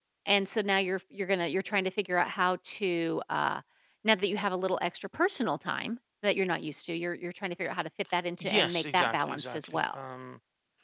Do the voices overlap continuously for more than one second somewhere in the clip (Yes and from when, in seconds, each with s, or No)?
Yes, from 8.4 s